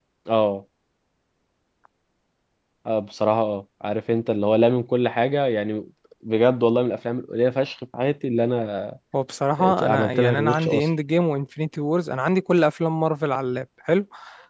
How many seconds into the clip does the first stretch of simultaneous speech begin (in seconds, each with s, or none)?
9.6 s